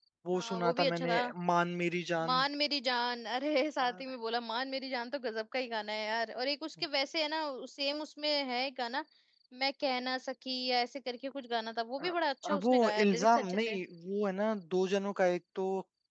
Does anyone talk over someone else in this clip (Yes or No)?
Yes